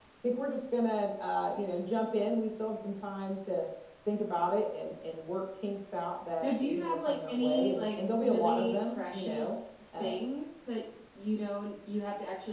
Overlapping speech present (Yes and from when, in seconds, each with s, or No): Yes, from 6.4 s